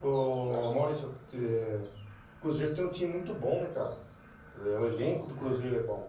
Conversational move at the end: listening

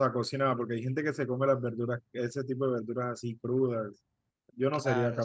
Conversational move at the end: taking over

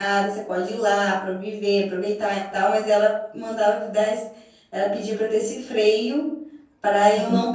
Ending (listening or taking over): listening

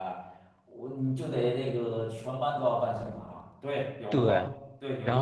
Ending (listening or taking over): taking over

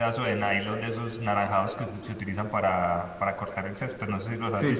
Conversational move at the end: taking over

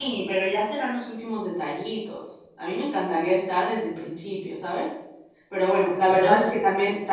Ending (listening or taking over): listening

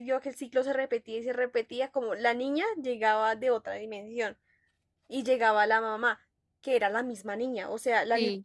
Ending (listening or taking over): listening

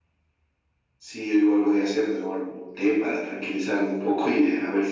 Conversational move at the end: taking over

